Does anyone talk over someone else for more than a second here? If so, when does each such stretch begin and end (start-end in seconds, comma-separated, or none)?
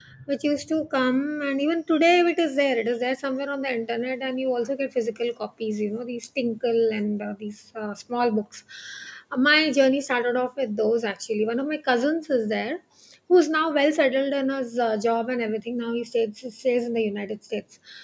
none